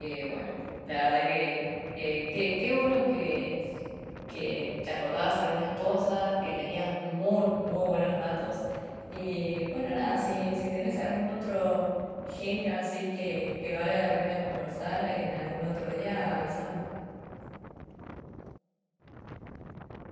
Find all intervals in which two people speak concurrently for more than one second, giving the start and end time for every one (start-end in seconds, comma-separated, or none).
none